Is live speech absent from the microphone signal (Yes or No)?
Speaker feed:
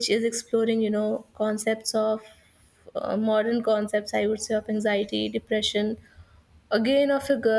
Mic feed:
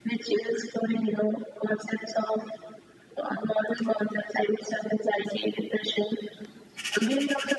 Yes